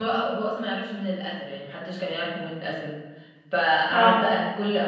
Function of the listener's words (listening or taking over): listening